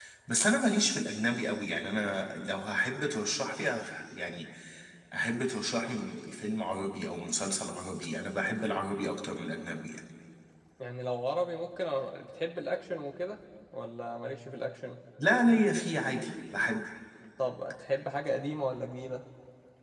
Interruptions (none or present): none